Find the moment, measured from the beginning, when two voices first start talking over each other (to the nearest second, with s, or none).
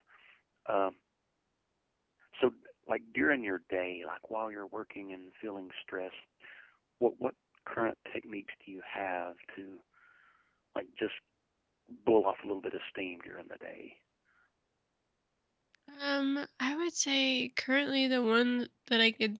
none